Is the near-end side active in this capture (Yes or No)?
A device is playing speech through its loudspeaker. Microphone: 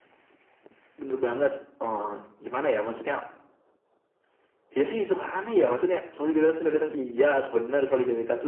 No